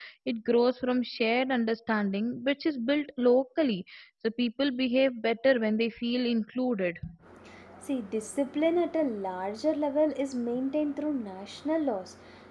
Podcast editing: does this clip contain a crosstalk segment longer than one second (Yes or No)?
No